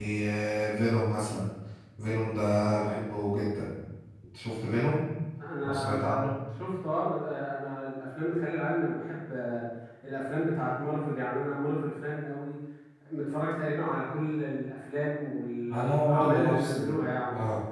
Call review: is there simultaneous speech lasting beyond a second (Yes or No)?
Yes